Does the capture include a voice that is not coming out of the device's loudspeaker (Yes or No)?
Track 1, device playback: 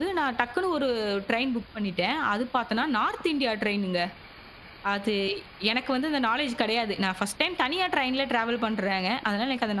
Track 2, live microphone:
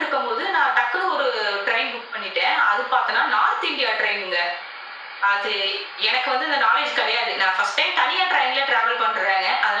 No